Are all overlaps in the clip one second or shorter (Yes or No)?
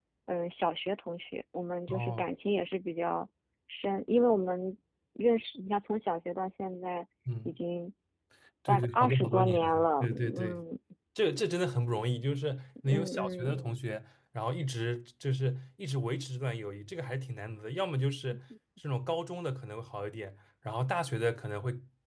No